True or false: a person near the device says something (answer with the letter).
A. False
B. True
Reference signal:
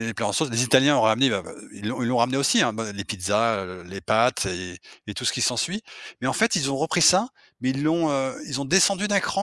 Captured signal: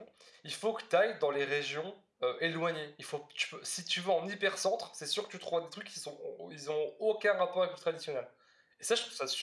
B